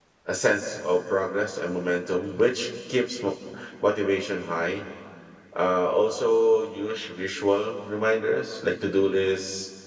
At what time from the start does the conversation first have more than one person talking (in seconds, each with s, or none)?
none